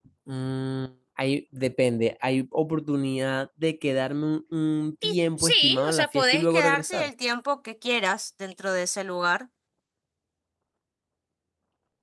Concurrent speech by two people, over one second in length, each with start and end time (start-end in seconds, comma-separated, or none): 5.0-7.1